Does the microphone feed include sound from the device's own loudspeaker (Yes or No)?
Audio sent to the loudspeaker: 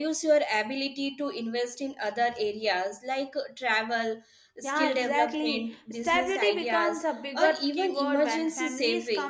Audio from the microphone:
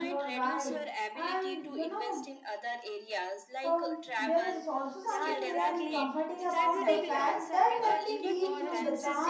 Yes